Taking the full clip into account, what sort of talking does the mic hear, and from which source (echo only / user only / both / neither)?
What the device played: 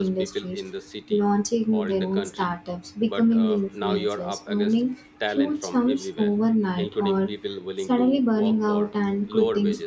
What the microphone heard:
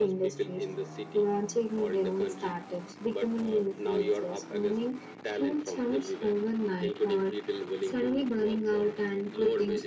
echo only